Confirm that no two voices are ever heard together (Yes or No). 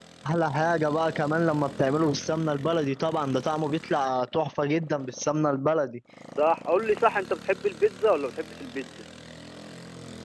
Yes